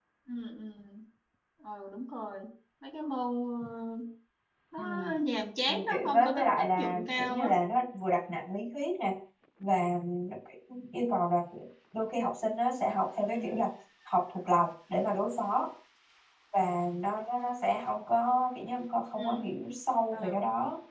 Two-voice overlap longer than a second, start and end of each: 5.7-7.5

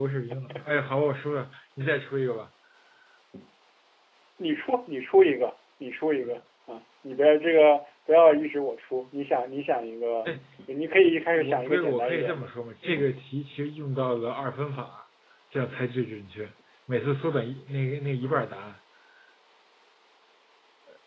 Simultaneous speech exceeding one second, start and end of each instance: 11.3-12.6

